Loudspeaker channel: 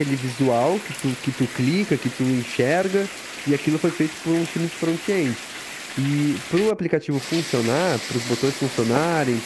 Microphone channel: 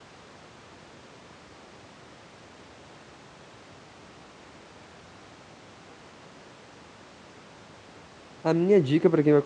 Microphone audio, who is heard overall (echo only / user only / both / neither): user only